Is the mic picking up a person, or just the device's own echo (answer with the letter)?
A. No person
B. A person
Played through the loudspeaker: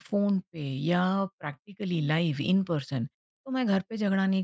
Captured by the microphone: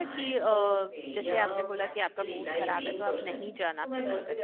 B